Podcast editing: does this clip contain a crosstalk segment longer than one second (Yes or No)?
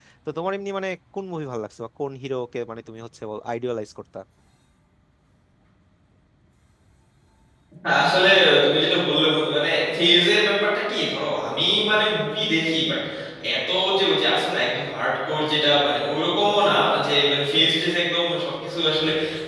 No